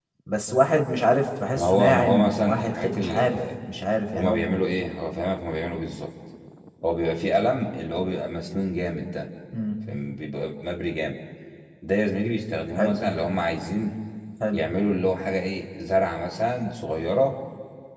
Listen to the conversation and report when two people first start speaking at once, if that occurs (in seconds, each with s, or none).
1.5 s